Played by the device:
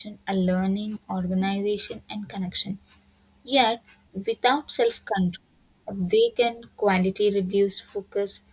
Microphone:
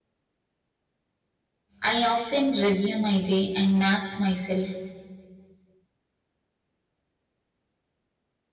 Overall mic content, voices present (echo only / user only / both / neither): user only